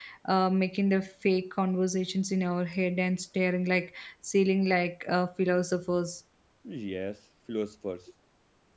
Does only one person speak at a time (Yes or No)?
Yes